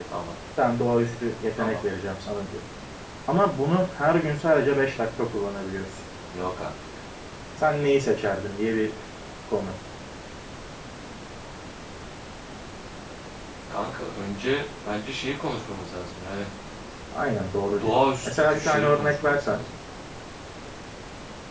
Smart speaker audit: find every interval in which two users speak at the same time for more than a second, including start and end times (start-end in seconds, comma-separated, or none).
17.7-19.6